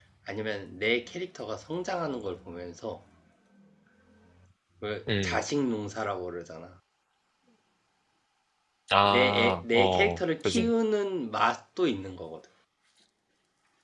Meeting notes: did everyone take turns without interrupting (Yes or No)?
No